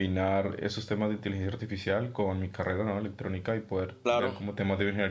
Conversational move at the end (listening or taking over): listening